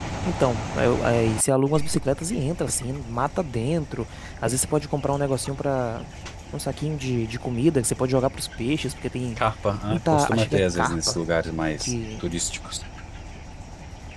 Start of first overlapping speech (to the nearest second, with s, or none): 10 s